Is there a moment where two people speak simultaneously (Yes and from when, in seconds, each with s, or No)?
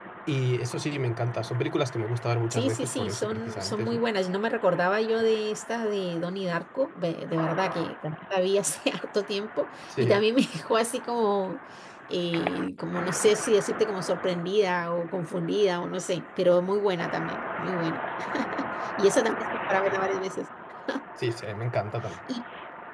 Yes, from 2.5 s